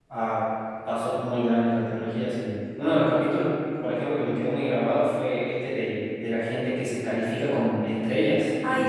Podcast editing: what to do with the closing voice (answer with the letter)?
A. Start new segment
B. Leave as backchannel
B